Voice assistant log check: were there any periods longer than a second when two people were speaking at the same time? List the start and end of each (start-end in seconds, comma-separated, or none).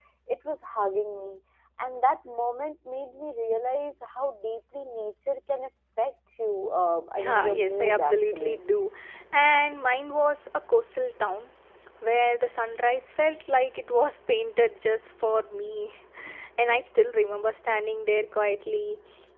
7.2-8.6